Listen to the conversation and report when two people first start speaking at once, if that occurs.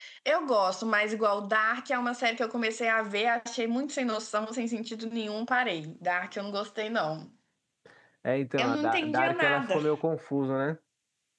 8.6 s

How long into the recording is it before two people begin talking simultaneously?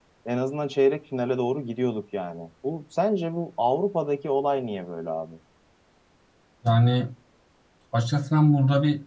none

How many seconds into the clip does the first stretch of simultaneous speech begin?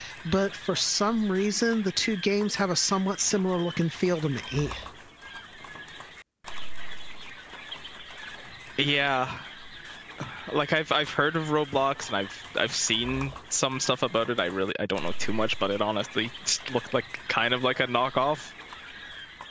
none

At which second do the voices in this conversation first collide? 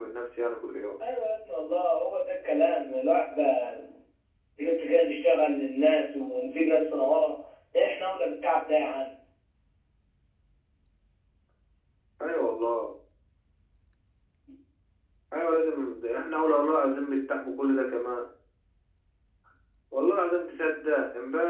none

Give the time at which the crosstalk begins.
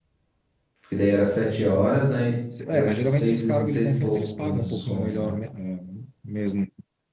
2.7 s

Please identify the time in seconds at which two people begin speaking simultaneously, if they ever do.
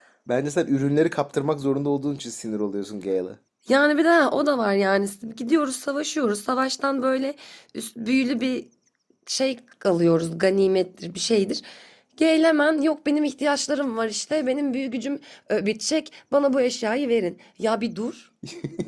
none

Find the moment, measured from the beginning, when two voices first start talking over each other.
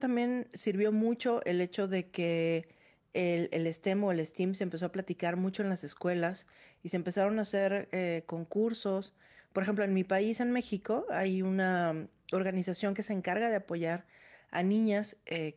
none

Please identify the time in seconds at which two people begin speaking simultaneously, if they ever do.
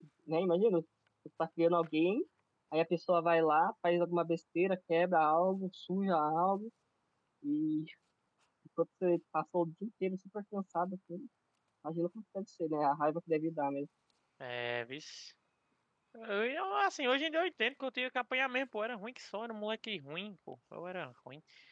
none

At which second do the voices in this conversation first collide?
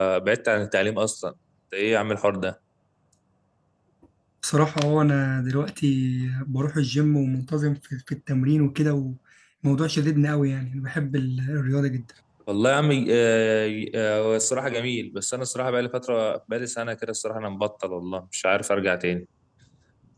none

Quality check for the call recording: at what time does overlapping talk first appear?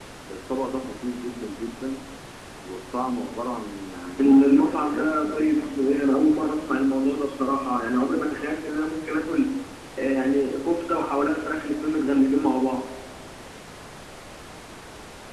4.2 s

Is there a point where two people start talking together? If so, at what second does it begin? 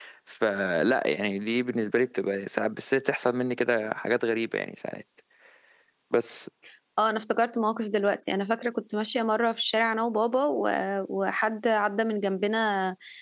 none

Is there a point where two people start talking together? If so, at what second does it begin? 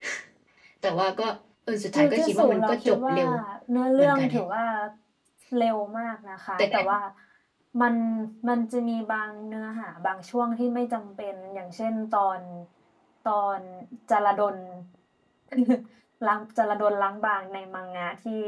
1.9 s

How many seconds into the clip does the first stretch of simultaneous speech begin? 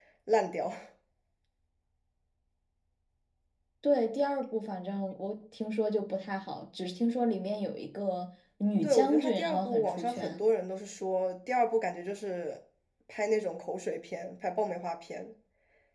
8.8 s

